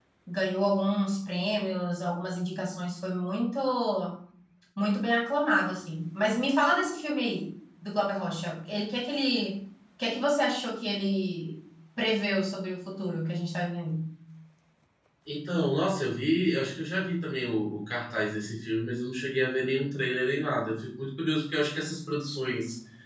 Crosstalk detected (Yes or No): No